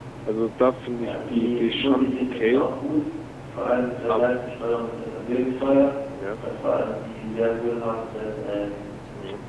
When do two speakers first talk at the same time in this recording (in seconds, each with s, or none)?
0.9 s